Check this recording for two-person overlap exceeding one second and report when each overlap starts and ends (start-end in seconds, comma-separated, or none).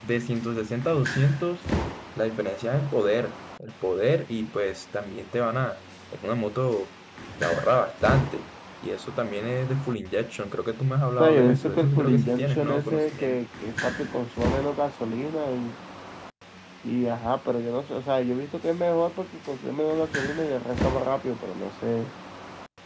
11.2-13.4